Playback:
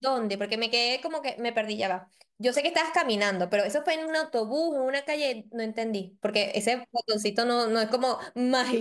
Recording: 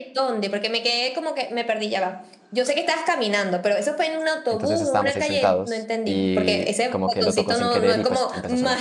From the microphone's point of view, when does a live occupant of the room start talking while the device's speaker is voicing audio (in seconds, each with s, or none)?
4.5 s